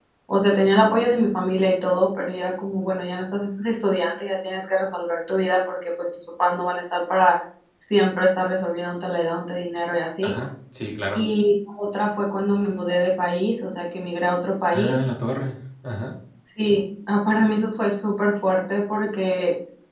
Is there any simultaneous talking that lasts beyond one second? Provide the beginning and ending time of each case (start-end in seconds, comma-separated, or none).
none